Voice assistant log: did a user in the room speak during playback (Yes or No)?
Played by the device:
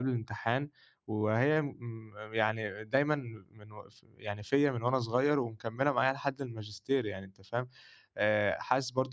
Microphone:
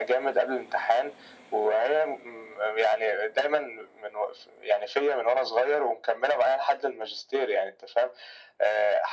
No